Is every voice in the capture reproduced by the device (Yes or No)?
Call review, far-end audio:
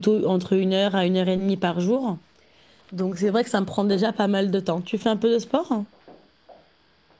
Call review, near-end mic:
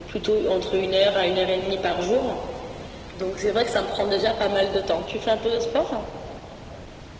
Yes